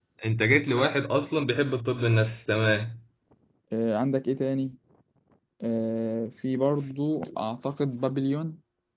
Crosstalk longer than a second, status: none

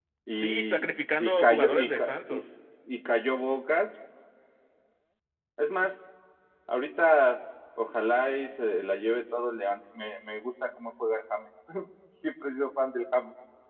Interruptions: present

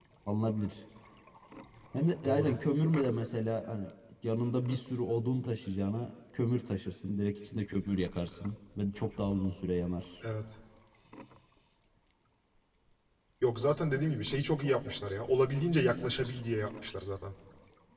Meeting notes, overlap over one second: none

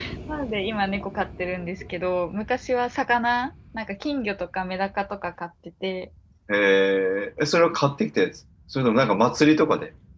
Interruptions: none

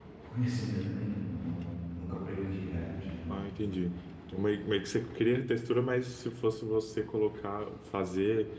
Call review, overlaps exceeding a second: none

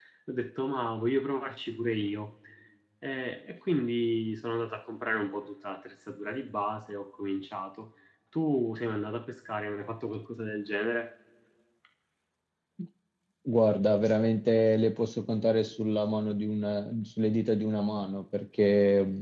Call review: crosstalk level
none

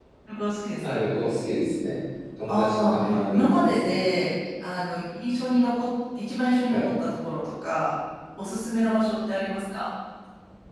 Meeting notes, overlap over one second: present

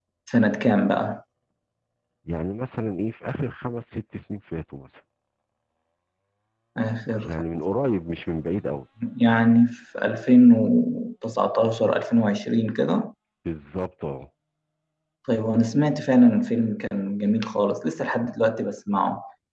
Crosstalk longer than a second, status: none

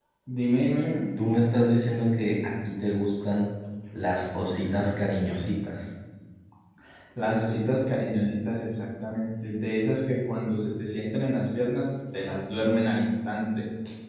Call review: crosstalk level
none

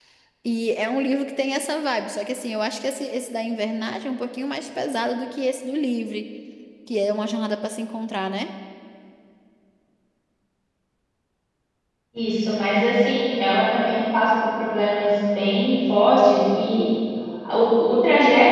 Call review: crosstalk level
none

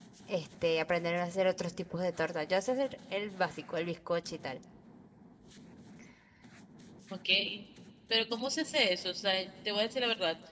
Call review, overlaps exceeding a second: none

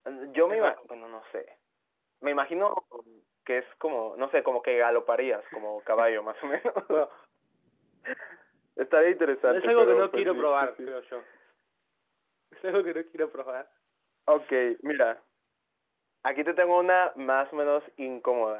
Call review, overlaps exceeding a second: present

